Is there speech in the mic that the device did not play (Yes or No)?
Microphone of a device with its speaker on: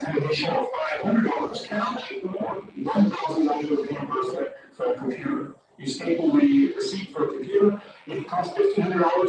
No